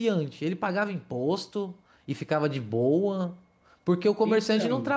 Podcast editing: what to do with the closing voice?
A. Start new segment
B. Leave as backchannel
B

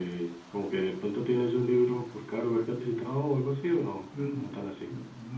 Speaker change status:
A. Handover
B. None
A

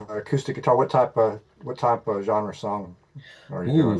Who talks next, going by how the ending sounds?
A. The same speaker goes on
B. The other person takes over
B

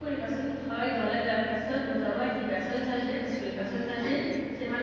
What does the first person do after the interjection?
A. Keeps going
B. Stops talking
A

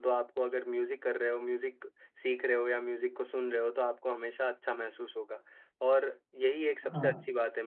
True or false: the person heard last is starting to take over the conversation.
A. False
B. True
A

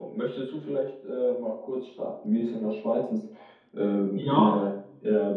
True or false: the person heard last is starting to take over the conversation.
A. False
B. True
A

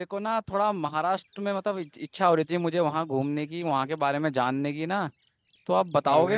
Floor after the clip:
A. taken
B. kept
A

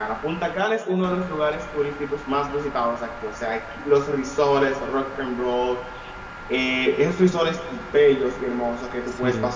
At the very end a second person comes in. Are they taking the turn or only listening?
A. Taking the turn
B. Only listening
B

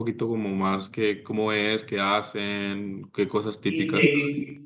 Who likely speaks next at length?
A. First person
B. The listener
B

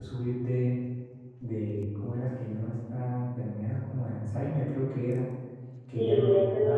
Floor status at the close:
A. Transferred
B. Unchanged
A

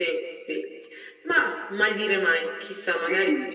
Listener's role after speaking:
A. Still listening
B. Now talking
B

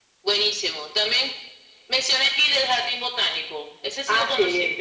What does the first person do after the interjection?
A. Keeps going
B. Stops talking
B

